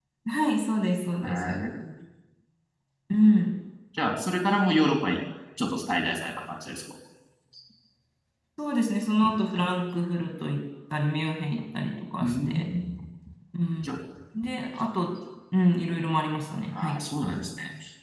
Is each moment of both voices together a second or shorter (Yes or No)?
Yes